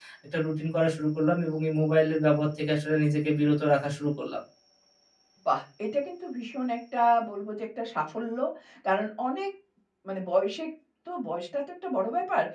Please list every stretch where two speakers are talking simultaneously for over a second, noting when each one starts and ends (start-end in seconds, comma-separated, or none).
none